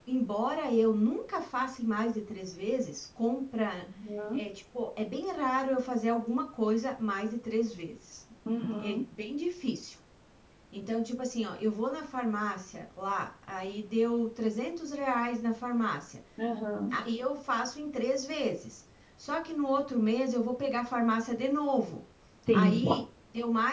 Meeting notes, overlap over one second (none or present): none